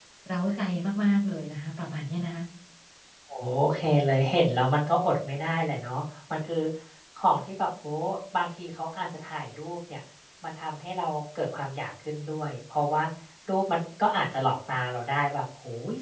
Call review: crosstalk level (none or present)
none